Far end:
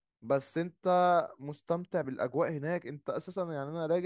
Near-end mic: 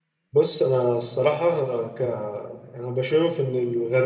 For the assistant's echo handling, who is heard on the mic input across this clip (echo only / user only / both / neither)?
user only